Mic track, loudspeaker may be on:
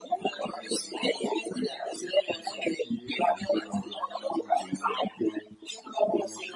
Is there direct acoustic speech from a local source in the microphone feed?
No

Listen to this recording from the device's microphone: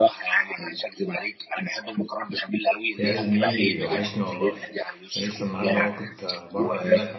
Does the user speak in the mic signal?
Yes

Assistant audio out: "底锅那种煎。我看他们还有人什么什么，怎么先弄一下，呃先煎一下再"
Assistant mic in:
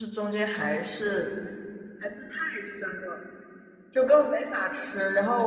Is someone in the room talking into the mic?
Yes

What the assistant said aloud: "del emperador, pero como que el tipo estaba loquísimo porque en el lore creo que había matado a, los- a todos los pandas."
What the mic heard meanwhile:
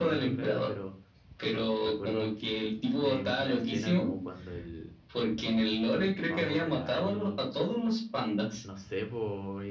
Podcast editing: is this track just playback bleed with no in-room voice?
No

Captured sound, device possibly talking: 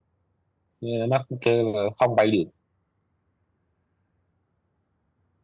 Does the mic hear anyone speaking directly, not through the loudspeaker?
Yes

